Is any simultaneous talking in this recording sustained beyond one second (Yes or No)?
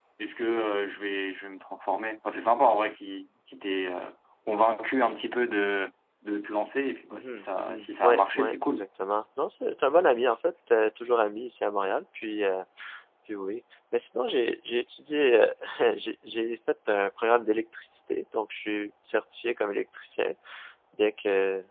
Yes